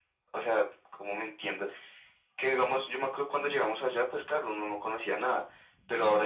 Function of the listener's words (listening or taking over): listening